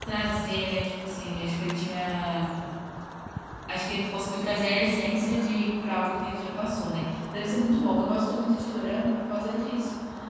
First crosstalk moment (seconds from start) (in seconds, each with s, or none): none